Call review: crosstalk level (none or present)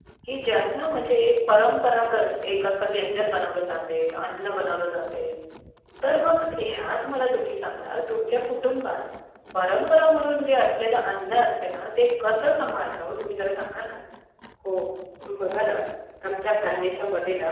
none